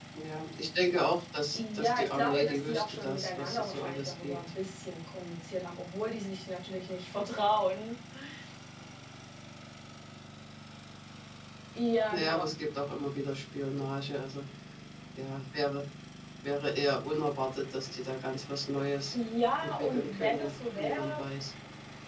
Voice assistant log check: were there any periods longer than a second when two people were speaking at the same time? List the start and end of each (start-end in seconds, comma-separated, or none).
1.5-4.4, 19.6-21.2